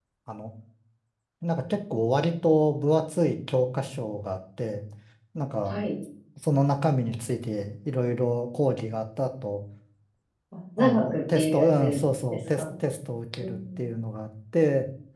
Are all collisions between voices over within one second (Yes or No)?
No